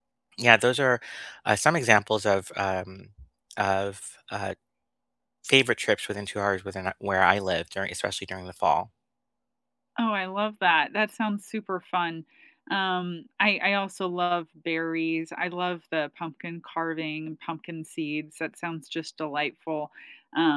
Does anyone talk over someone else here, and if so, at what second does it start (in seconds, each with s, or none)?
none